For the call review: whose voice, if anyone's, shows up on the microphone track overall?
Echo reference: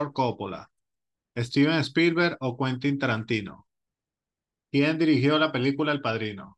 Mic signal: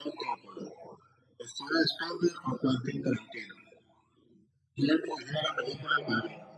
both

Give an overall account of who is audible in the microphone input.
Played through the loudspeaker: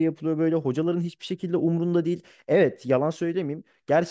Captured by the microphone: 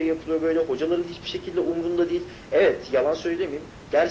echo only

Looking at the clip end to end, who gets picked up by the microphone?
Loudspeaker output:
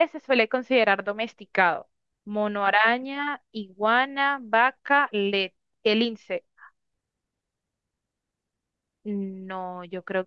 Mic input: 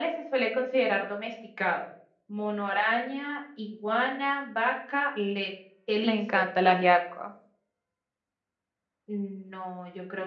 both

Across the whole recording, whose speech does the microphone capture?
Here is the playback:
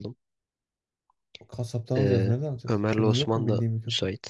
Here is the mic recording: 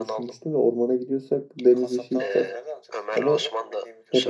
both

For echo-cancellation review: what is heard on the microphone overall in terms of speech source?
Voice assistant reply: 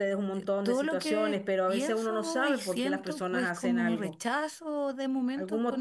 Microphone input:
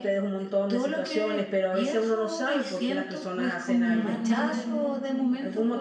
both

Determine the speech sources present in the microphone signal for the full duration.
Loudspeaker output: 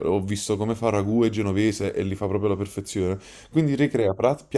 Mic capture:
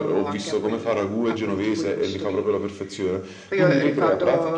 both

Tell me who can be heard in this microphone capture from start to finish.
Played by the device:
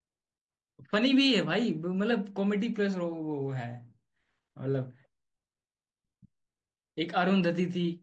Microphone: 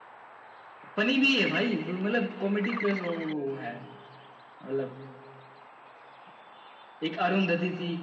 echo only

